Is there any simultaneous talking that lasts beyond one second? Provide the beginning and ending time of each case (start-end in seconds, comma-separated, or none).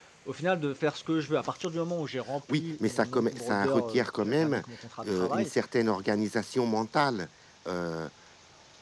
2.5-4.6